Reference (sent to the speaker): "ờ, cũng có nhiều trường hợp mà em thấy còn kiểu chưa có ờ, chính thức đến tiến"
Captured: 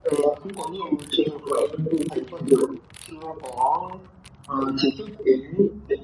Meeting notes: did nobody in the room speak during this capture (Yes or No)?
Yes